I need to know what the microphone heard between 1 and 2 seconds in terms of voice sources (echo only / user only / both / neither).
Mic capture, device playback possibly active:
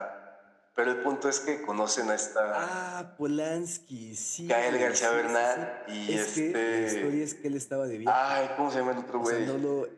echo only